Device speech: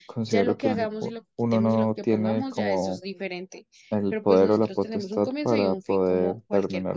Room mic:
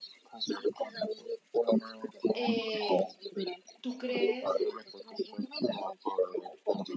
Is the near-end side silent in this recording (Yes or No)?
No